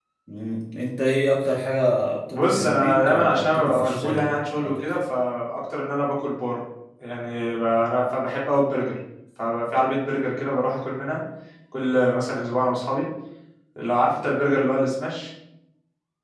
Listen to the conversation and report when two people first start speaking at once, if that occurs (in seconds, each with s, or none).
2.3 s